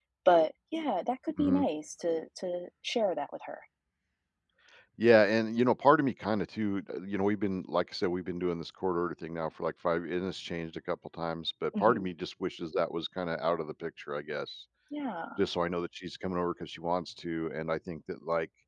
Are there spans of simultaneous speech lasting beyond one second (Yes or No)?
No